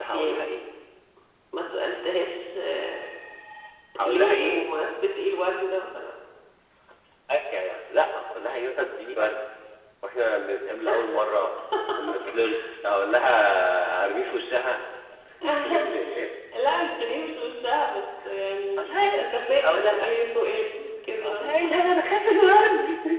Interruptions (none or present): present